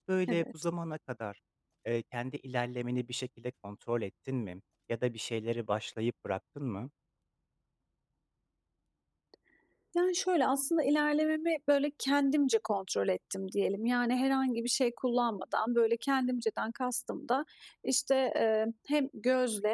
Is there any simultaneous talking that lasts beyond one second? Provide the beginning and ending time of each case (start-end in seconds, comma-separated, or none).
none